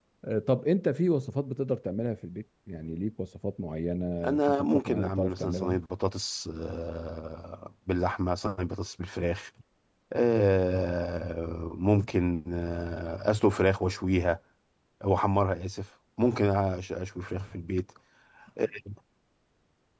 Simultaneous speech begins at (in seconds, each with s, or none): 4.2 s